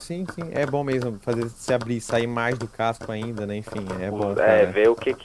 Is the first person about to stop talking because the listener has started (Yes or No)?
Yes